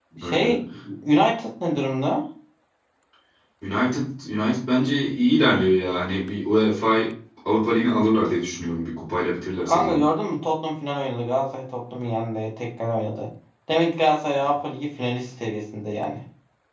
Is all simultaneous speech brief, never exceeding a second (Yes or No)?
Yes